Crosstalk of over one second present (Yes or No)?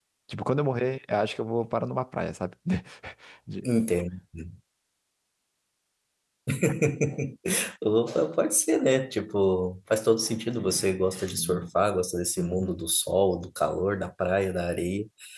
No